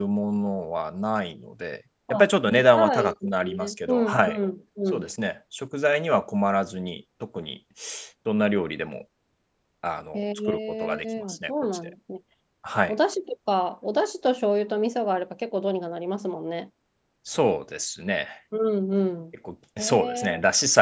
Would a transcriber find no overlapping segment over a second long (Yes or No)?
No